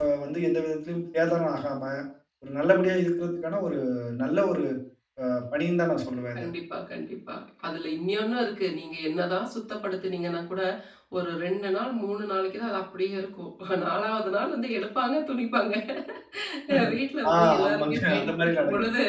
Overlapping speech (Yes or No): Yes